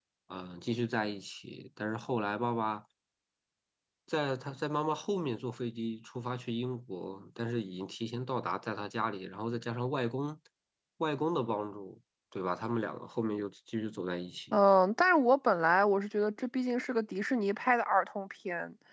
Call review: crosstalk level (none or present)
none